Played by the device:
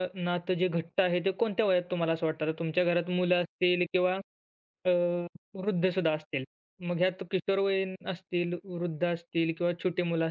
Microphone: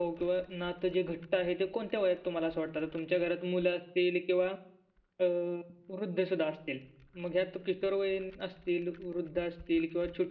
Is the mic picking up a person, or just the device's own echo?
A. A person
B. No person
B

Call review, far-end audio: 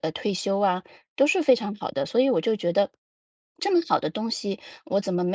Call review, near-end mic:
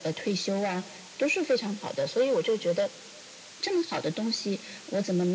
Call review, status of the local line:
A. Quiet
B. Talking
A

